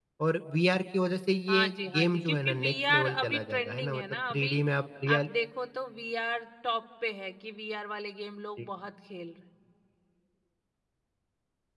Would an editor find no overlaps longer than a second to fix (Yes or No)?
No